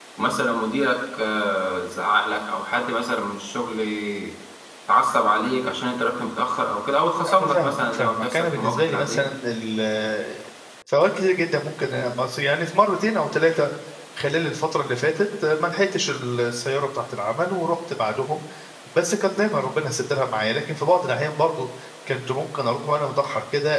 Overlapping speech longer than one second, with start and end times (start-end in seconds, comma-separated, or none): 7.3-9.3